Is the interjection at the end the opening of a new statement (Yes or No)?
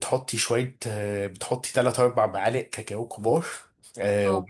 No